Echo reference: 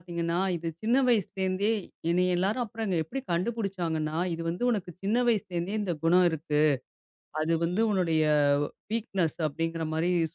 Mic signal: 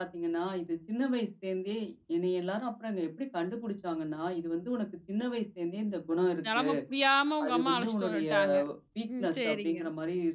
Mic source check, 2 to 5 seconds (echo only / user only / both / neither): echo only